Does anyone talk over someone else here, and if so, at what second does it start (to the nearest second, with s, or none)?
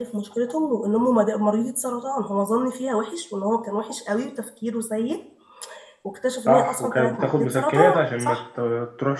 6 s